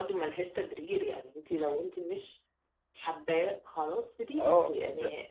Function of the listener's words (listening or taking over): taking over